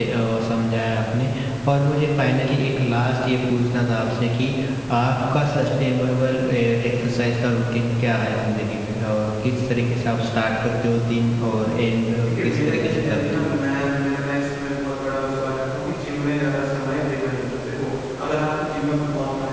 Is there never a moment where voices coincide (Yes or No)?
No